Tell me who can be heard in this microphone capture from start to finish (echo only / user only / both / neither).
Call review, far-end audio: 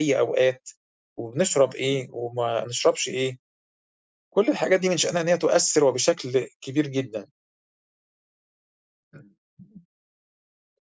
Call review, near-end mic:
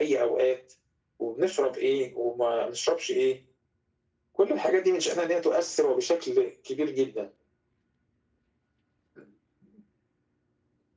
echo only